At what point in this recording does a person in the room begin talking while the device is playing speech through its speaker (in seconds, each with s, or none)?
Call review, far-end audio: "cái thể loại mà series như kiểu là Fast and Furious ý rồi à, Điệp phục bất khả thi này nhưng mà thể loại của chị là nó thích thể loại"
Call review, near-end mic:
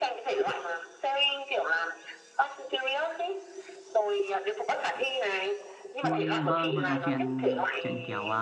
6.0 s